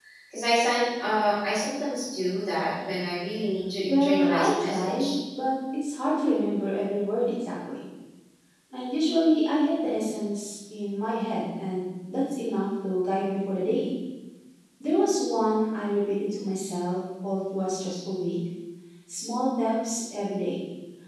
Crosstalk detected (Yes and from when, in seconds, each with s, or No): Yes, from 3.9 s